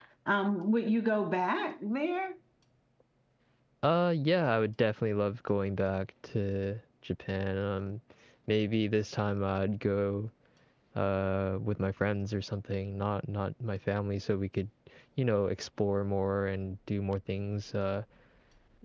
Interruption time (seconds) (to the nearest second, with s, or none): none